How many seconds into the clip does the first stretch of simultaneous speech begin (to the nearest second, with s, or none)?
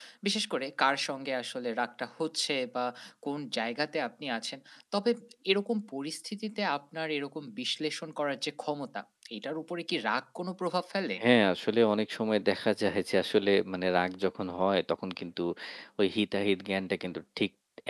none